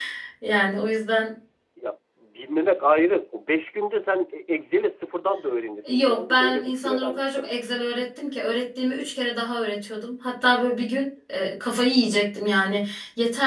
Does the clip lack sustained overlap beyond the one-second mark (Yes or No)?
No